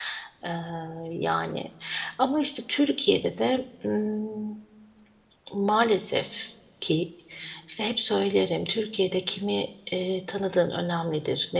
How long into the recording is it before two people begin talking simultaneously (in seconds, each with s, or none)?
none